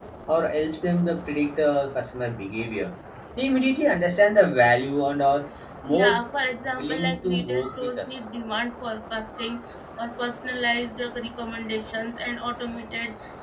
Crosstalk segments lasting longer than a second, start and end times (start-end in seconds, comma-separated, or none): 6.6-8.2